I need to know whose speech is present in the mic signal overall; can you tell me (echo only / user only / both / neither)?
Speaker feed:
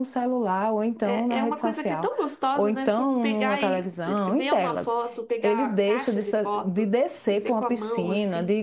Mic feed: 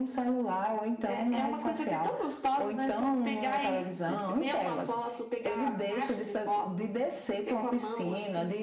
echo only